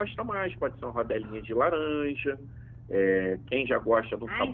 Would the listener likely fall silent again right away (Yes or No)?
No